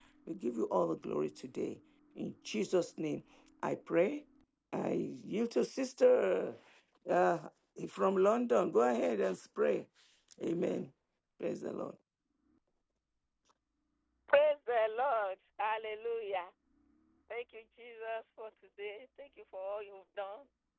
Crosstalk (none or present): none